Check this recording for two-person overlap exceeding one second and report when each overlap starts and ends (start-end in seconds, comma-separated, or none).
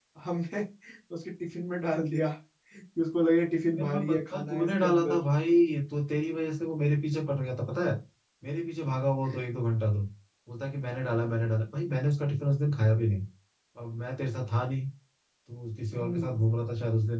3.8-5.2